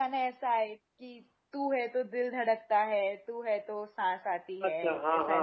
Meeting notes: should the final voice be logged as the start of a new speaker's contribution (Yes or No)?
Yes